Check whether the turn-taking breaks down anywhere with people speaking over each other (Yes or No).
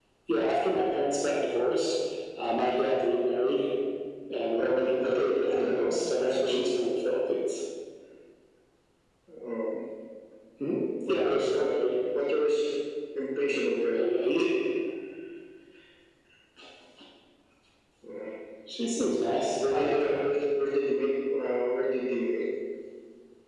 Yes